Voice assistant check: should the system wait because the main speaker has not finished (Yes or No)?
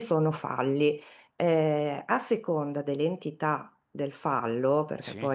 Yes